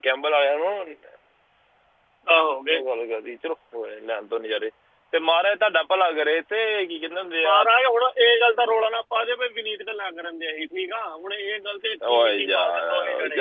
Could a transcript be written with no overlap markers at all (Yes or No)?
No